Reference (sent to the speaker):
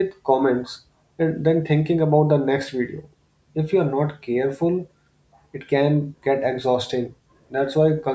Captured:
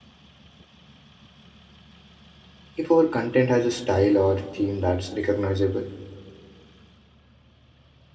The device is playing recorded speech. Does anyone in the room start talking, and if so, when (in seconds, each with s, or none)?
2.8 s